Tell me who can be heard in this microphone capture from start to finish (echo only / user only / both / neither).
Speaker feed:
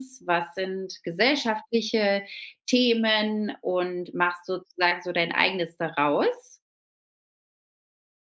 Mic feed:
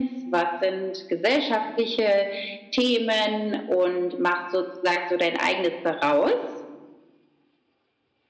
echo only